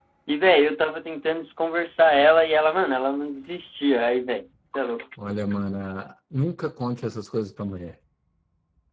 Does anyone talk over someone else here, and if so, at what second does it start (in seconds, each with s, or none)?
none